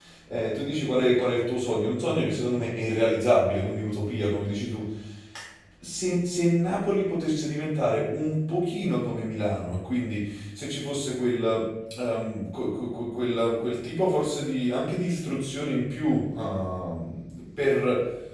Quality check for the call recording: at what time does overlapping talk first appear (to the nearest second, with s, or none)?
none